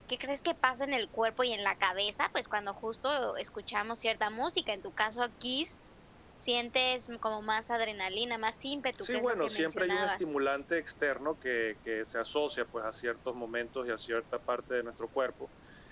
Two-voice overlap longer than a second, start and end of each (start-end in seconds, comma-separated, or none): 9.0-10.3